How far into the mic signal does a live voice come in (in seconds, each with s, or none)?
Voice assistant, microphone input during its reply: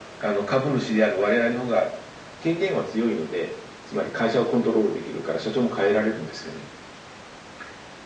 none